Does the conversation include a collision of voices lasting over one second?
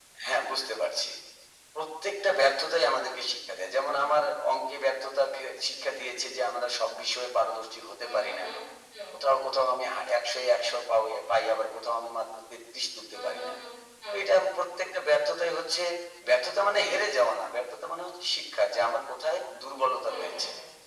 No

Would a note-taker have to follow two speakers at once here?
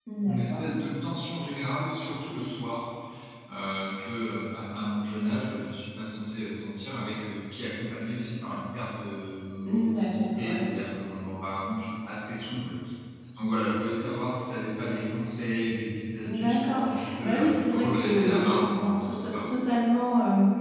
Yes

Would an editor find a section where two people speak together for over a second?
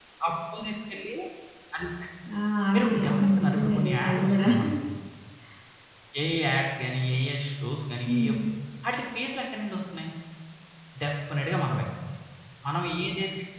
Yes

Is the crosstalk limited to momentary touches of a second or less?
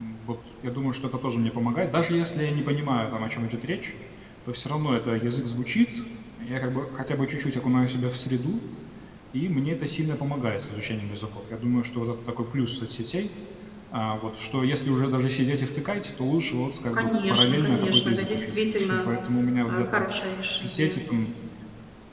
No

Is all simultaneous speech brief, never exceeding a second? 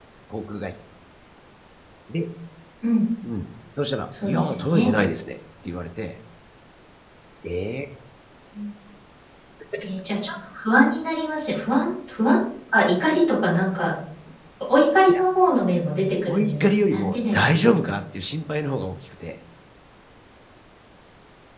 No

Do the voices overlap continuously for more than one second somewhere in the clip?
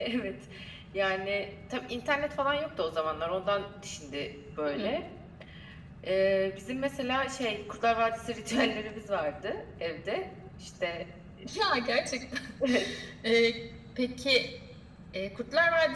No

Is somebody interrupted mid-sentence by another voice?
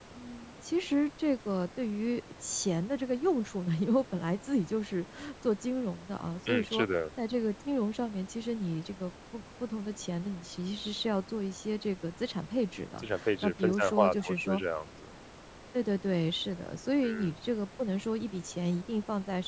Yes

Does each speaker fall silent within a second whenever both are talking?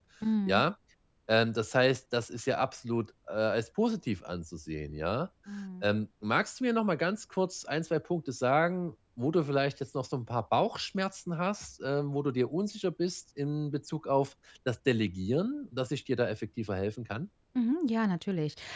Yes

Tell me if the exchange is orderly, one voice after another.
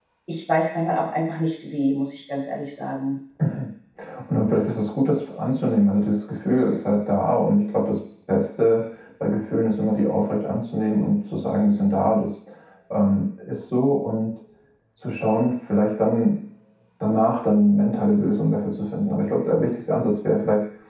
Yes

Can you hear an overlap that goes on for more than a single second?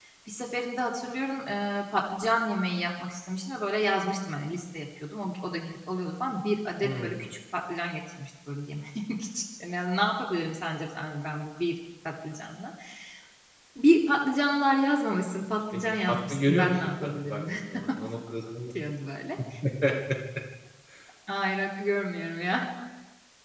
Yes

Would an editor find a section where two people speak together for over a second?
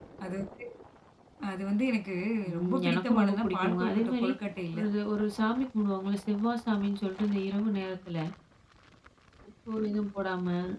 Yes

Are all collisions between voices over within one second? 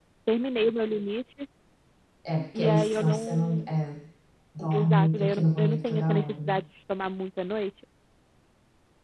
No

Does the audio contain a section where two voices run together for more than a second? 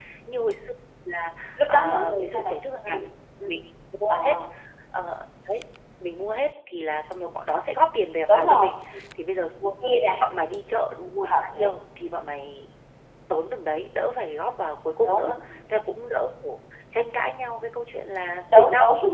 Yes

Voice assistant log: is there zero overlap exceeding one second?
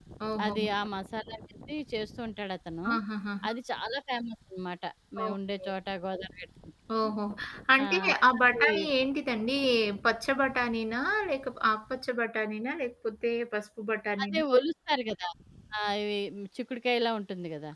Yes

